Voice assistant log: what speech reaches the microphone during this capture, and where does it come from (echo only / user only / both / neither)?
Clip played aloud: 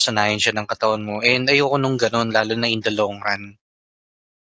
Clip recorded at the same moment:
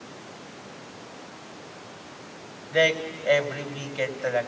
user only